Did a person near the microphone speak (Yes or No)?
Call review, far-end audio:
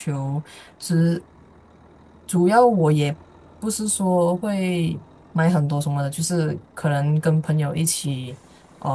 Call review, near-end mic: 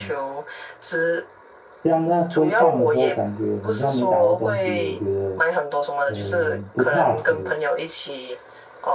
Yes